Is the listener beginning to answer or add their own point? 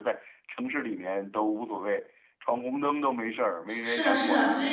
Yes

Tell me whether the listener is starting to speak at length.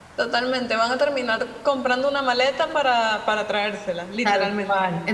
Yes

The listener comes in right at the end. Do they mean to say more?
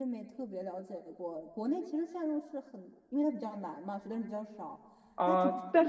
Yes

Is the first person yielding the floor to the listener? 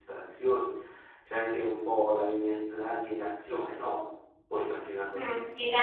Yes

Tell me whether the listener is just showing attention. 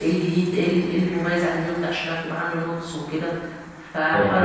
No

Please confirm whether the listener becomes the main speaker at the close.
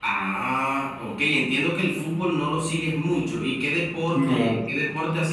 No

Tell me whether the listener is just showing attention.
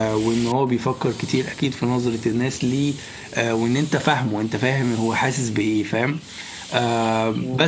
No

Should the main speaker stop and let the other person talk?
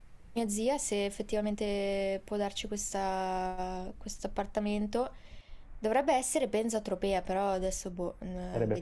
Yes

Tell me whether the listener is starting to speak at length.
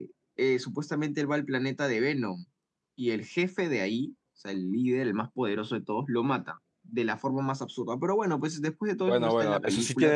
Yes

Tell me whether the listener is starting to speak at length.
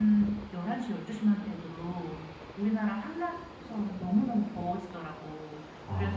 No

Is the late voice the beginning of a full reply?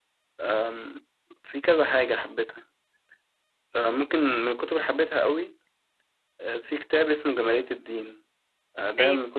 No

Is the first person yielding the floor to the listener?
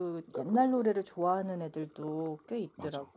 Yes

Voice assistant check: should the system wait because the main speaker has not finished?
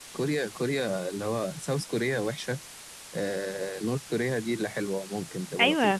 No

